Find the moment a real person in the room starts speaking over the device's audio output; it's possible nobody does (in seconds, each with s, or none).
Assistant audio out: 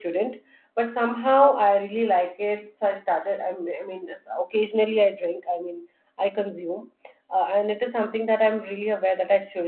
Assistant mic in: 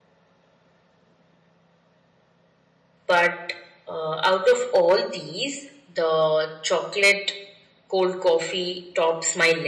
3.0 s